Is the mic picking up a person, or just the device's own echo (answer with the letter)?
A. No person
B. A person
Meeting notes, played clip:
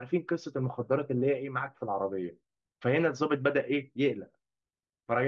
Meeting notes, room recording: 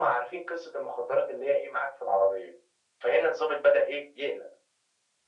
A